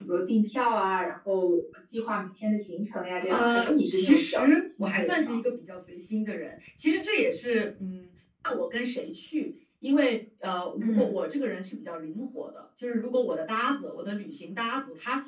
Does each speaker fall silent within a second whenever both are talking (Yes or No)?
No